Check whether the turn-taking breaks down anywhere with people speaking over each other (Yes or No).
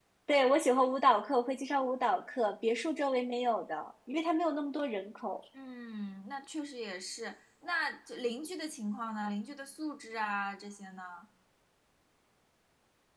No